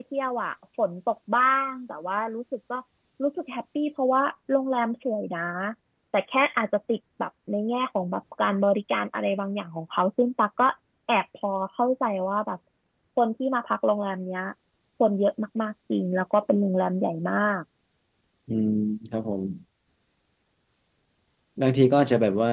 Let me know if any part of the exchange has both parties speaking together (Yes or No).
No